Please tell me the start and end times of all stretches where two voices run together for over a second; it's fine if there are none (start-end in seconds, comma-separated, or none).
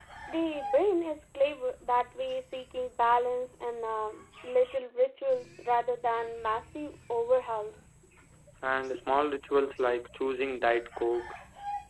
none